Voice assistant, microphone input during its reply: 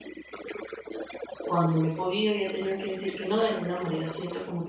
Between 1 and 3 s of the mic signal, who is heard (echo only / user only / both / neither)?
both